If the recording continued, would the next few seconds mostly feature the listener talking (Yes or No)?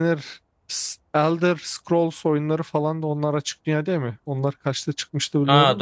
Yes